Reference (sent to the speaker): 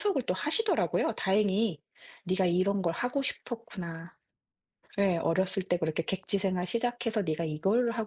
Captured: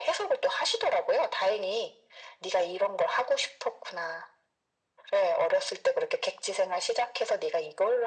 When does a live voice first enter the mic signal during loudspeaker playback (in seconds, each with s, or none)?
none